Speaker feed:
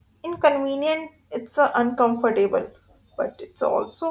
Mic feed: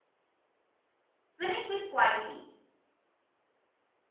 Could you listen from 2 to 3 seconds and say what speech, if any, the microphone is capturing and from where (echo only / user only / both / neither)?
user only